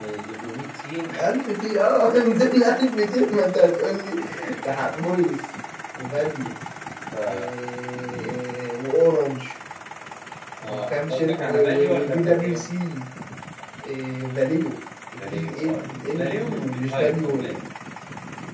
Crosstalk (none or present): present